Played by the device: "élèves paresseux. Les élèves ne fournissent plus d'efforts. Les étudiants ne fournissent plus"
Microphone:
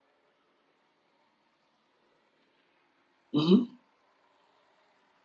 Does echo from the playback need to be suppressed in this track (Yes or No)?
No